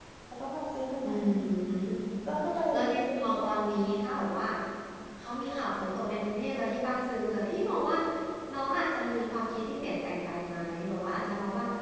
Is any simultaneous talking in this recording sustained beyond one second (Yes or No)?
No